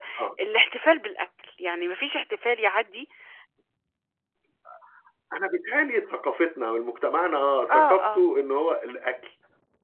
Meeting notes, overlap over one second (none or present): none